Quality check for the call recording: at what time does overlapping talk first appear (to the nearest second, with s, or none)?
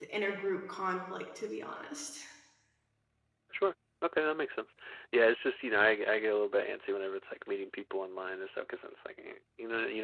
none